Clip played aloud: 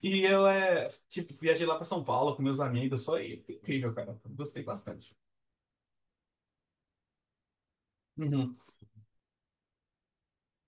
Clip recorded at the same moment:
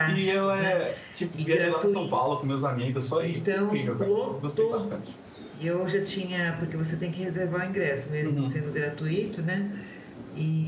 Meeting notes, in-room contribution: present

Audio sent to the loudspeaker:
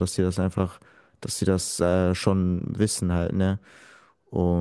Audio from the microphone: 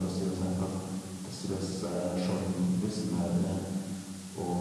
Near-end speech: none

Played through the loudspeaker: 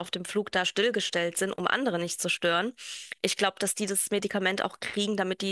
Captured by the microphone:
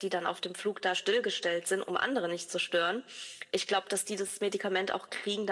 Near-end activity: none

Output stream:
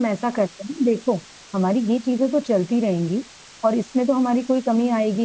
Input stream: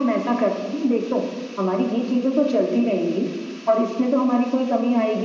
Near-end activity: none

